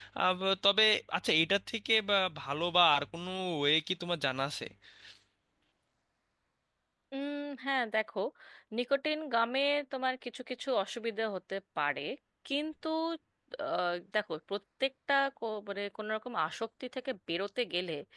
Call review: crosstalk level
none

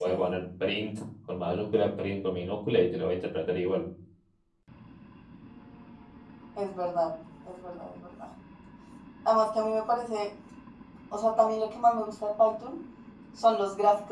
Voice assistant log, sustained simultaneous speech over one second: none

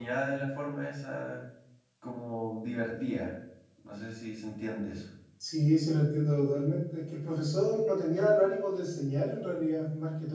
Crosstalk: none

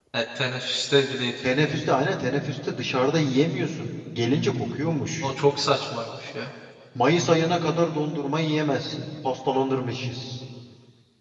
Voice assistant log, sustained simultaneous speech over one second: none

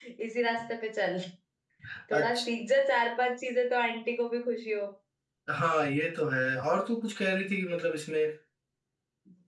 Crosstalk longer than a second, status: none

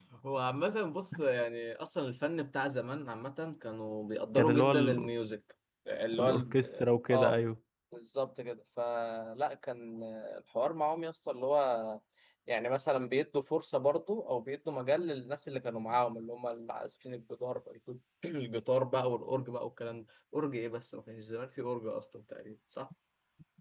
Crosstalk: present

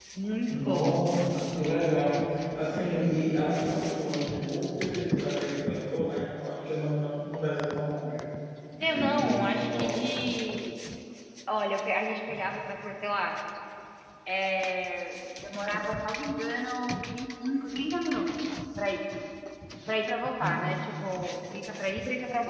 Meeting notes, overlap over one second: present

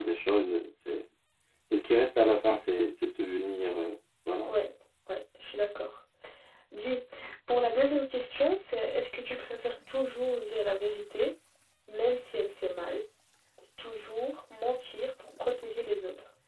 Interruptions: none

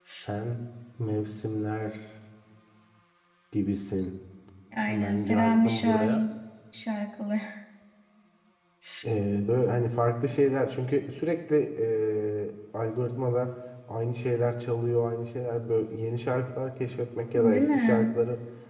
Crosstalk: present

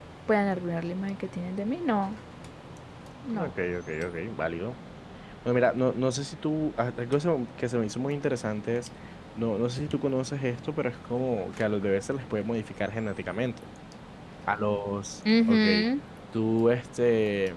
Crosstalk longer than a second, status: none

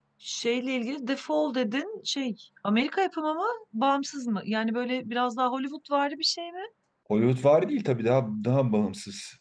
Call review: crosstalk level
none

